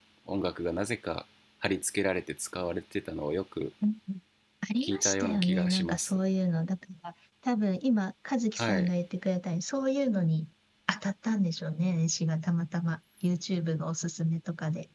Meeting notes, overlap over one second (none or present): present